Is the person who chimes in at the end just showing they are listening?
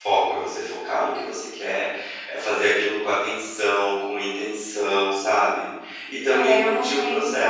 No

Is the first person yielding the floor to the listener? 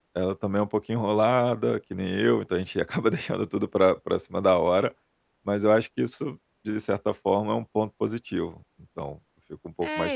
Yes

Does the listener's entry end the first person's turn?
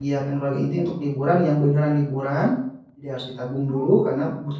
No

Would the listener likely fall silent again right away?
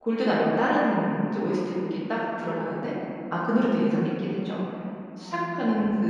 Yes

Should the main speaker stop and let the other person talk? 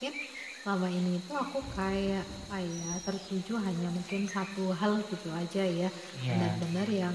No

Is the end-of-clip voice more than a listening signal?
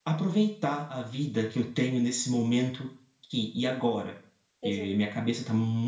No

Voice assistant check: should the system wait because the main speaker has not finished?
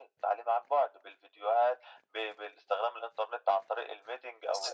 No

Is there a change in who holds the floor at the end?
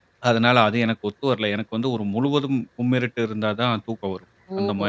Yes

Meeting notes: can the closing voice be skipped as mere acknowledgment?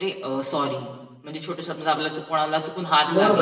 No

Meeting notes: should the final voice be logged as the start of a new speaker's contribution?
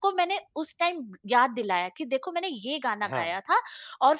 No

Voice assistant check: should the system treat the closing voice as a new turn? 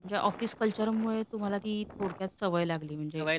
Yes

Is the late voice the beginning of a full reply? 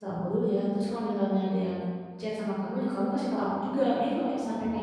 Yes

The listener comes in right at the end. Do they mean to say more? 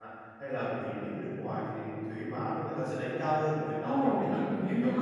Yes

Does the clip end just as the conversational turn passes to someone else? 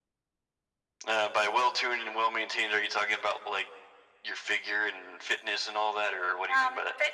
Yes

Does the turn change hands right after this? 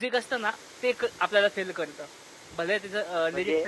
Yes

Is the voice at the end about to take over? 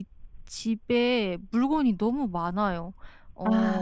No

